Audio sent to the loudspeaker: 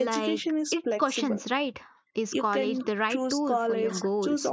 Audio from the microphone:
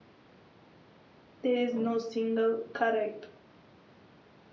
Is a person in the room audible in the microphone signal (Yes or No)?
Yes